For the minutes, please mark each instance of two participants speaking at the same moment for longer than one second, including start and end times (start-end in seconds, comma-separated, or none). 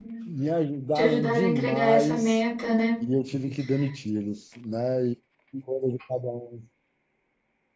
0.9-2.4